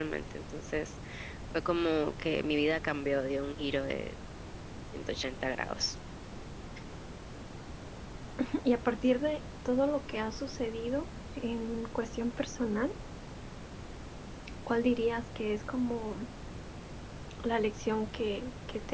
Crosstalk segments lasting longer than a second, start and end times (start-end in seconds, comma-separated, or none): none